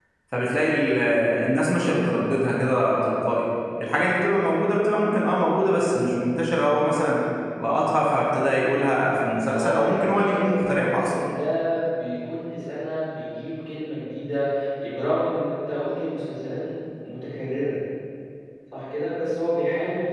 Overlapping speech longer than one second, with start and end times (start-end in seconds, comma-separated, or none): 9.5-11.1